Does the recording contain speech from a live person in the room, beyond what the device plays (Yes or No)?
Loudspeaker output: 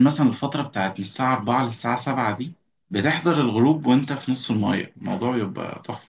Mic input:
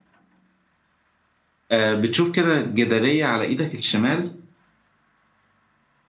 Yes